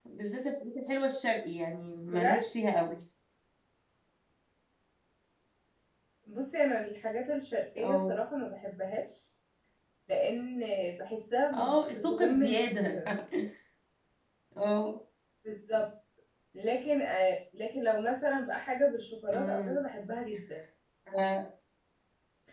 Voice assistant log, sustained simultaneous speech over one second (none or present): present